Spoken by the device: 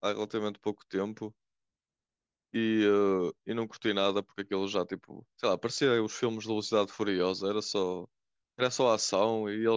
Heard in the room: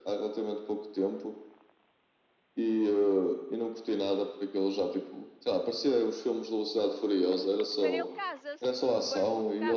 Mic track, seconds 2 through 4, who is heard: echo only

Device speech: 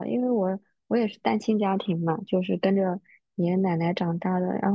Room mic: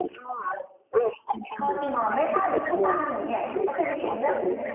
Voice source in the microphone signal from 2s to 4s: both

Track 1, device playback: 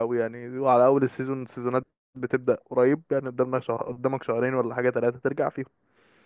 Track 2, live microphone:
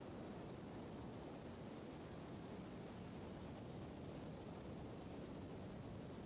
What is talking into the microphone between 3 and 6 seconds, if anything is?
neither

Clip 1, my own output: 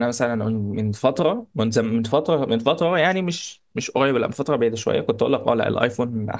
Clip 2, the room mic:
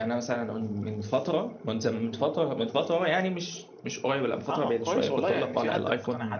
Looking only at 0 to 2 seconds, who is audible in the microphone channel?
echo only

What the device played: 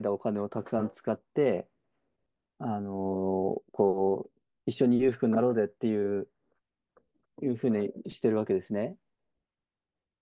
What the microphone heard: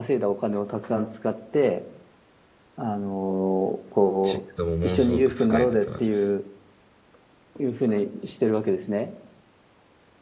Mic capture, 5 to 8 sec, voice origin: both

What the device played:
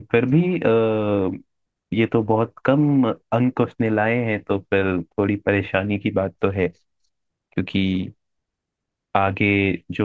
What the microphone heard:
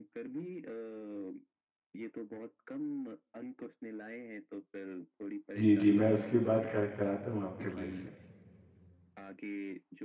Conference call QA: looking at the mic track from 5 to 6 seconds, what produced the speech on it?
both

